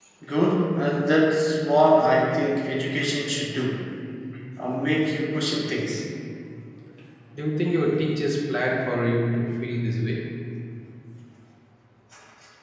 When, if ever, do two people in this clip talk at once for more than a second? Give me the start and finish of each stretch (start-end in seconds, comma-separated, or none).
none